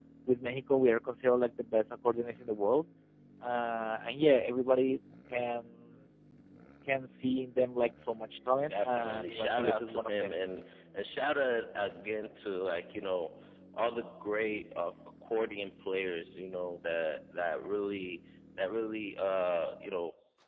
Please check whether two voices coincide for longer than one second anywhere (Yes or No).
Yes